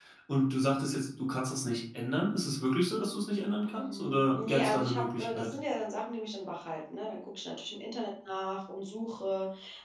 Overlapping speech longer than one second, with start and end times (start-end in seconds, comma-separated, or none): 3.7-5.5